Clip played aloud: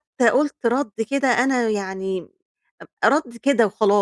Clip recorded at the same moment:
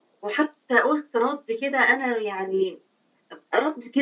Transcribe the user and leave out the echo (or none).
none